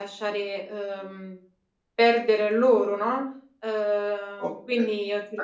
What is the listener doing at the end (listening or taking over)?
taking over